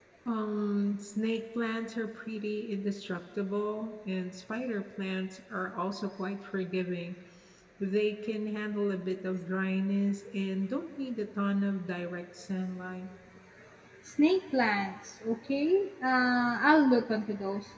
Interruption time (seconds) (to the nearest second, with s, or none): none